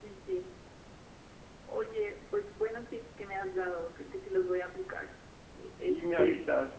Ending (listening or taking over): taking over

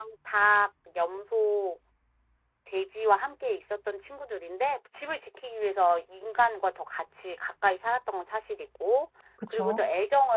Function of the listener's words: listening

